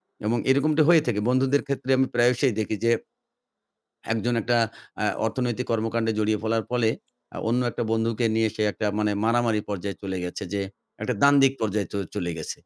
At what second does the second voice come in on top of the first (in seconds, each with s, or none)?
none